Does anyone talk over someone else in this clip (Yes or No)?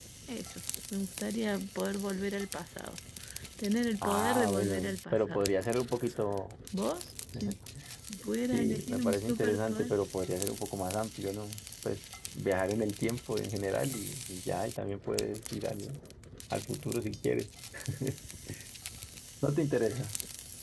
Yes